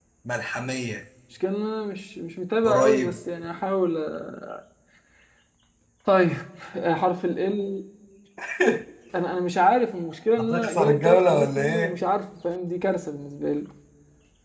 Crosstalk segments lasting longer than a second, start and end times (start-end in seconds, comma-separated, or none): 10.4-12.0